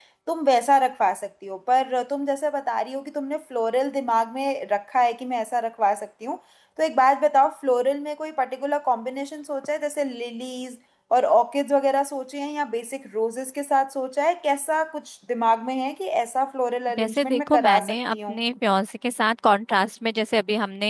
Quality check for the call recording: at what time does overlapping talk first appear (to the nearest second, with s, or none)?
17 s